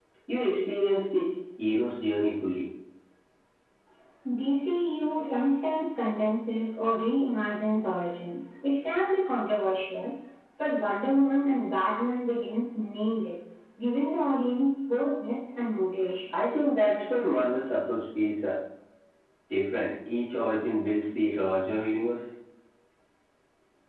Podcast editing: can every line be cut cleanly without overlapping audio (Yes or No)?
Yes